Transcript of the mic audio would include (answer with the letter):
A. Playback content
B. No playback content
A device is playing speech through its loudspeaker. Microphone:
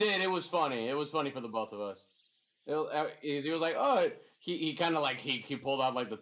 B